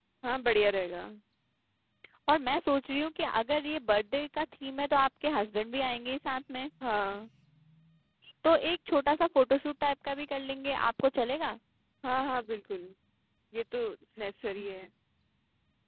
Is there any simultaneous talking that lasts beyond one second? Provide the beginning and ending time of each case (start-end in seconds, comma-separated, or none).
none